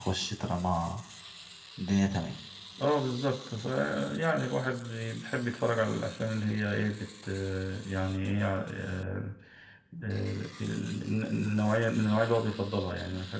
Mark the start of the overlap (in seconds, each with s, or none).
none